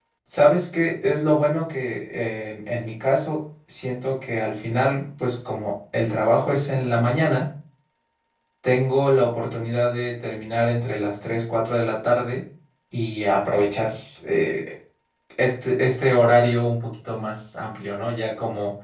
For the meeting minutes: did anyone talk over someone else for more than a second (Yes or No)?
No